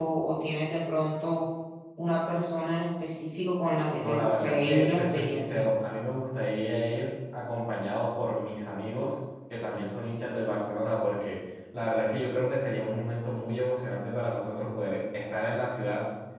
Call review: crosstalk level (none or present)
present